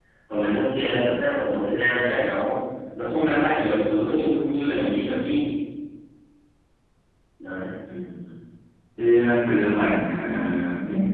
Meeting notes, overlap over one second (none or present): none